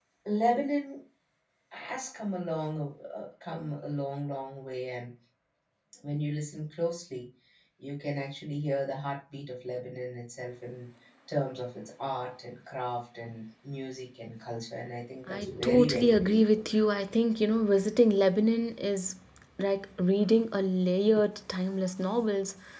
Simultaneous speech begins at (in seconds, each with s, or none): 15.3 s